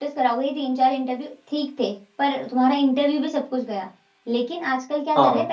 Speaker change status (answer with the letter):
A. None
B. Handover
A